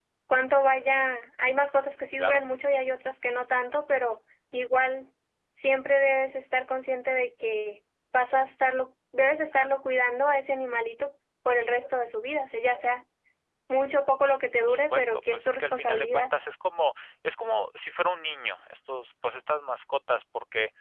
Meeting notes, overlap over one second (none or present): present